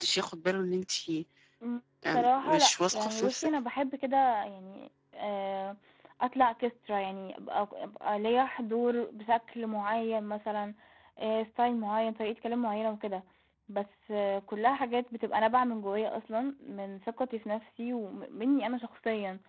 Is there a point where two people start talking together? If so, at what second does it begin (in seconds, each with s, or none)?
2.1 s